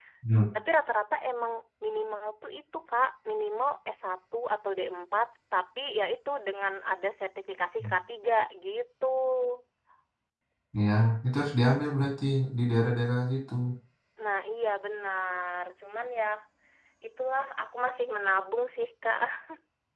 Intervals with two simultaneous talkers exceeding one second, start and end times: none

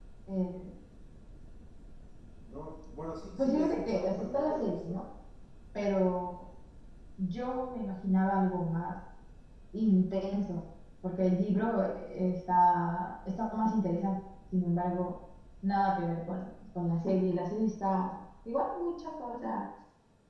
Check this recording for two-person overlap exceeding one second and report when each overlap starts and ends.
3.4-5.0

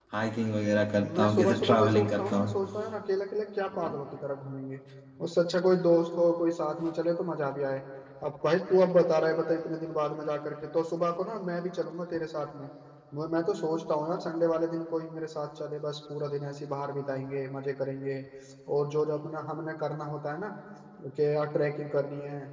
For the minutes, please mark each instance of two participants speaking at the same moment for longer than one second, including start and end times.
1.2-2.4

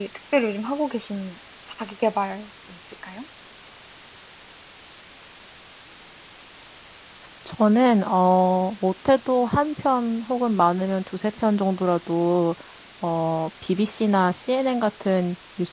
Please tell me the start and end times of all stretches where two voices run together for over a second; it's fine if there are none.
none

